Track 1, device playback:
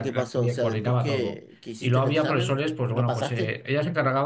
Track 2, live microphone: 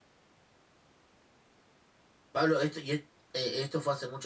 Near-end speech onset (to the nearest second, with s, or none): 2 s